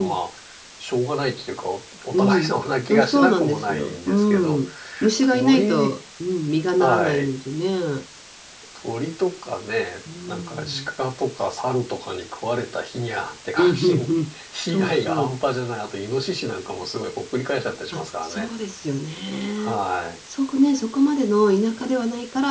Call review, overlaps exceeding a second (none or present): present